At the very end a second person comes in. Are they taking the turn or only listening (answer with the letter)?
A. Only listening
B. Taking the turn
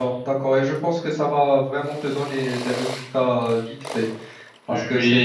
A